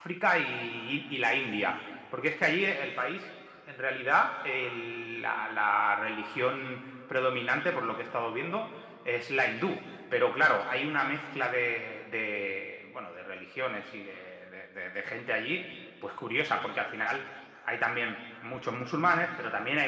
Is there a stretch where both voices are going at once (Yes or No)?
No